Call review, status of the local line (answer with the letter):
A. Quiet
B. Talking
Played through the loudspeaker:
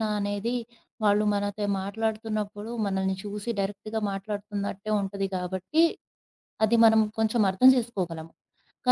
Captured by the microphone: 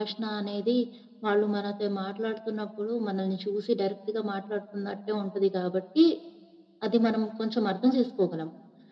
A